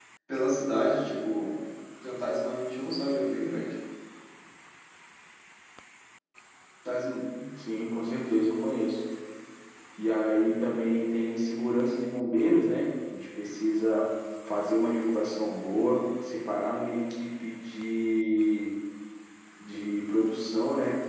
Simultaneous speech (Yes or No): No